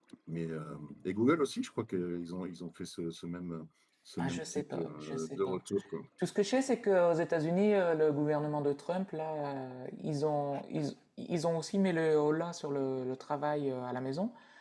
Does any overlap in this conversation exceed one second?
Yes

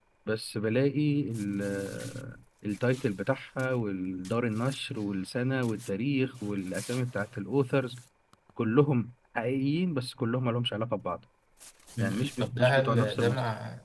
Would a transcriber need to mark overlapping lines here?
Yes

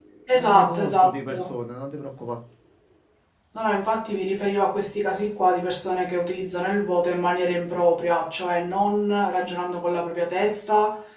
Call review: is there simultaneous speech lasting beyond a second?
Yes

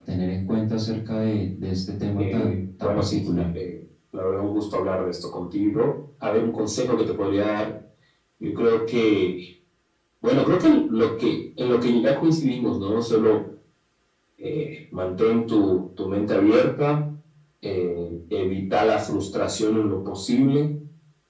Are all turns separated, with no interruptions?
No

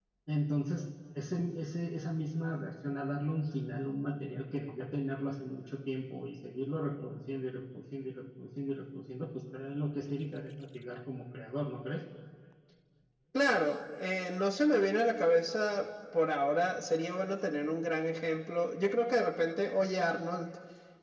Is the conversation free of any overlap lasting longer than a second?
Yes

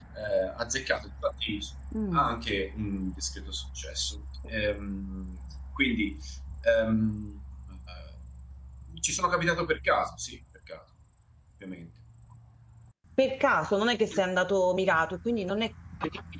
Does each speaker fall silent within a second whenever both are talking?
Yes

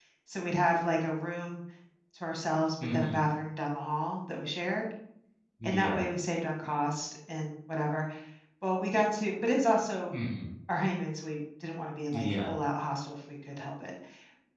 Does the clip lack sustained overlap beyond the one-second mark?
Yes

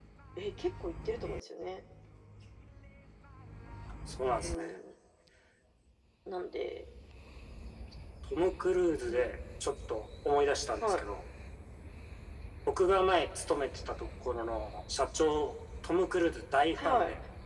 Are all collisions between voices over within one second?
Yes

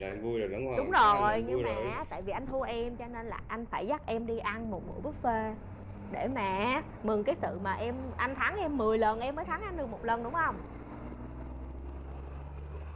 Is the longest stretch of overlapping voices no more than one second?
No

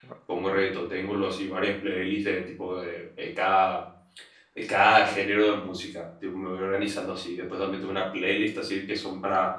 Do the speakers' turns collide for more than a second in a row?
No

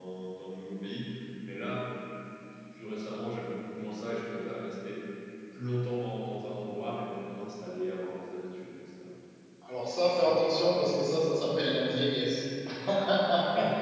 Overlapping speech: No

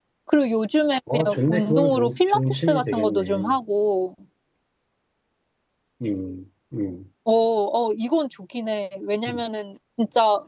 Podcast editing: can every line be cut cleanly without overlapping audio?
No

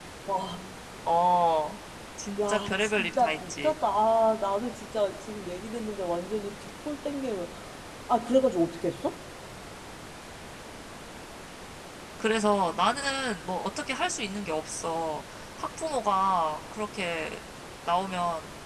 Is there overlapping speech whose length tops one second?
Yes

